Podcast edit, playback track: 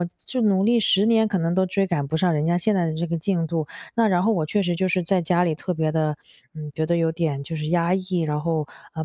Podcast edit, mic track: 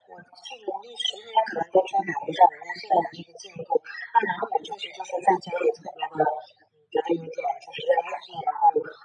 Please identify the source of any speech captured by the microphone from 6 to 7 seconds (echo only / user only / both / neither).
echo only